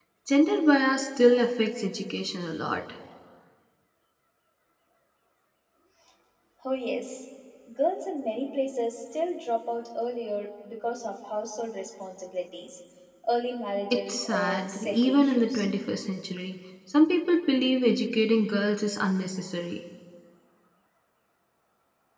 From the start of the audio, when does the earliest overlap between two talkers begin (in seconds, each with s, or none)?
13.9 s